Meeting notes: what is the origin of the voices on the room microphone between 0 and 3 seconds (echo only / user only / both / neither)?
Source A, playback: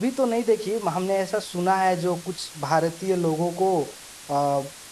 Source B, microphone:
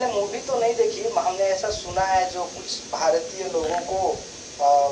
echo only